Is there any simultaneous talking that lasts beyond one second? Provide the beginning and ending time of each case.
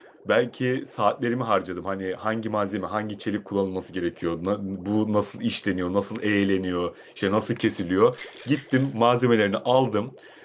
none

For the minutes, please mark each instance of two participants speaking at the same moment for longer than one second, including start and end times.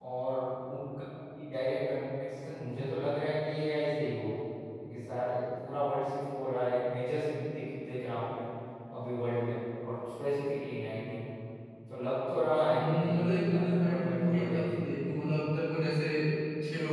12.7-14.8

